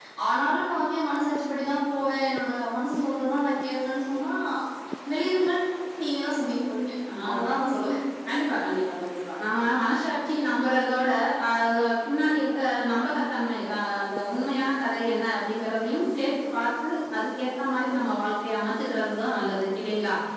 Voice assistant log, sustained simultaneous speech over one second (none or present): none